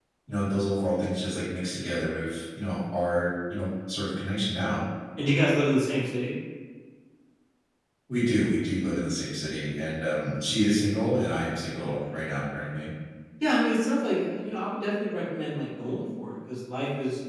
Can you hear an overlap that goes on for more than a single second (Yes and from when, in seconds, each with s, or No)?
No